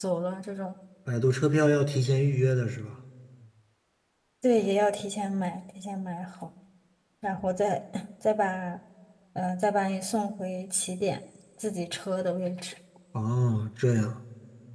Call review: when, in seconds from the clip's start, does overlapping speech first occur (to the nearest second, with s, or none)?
none